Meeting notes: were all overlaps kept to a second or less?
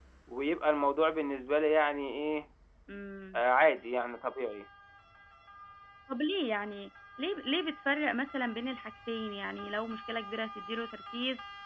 Yes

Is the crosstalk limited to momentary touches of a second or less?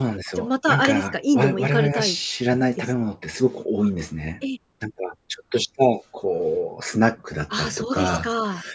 No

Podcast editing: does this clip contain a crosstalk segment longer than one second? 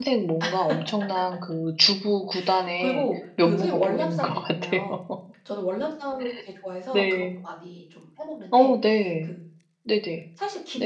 Yes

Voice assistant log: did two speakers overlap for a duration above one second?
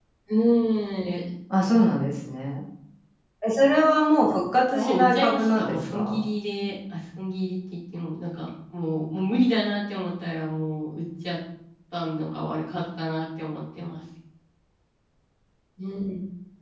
Yes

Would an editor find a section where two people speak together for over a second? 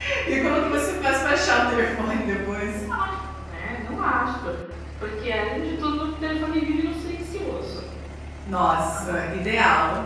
No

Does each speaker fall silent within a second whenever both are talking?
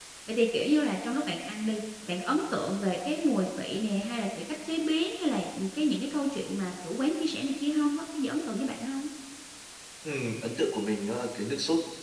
Yes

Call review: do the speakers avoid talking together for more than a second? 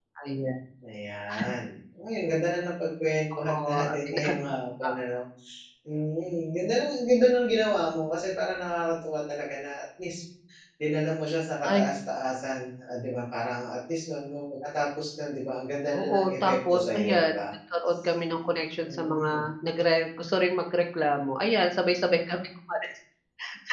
No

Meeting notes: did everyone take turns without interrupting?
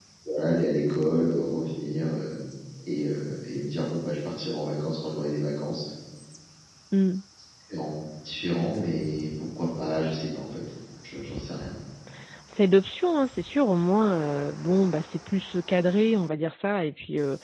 Yes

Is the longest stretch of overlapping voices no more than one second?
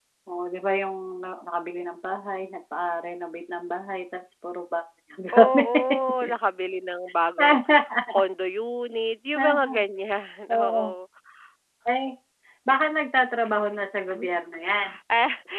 Yes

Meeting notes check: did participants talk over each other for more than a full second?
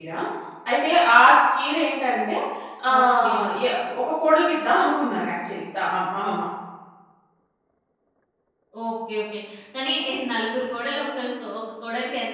No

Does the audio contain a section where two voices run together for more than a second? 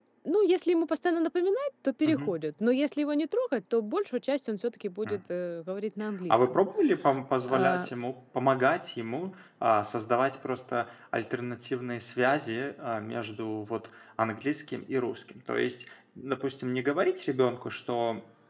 No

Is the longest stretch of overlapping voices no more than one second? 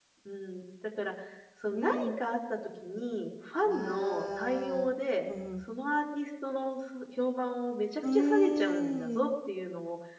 No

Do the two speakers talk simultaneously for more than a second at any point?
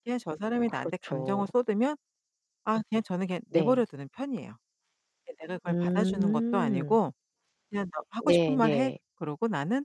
Yes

